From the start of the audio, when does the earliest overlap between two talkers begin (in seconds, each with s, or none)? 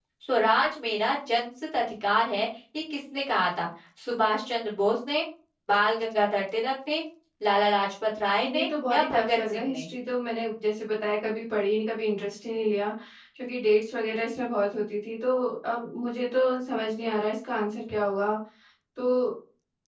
8.4 s